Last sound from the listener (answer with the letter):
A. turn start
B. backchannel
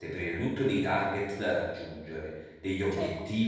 B